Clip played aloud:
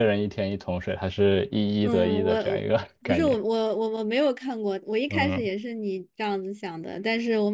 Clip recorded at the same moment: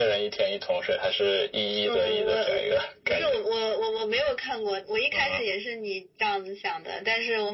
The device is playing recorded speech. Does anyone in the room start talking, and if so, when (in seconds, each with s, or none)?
none